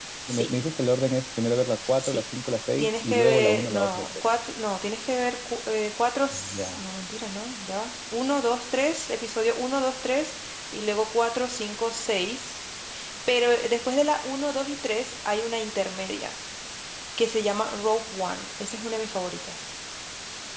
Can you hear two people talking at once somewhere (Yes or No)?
Yes